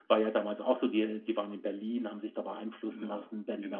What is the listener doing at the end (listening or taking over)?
listening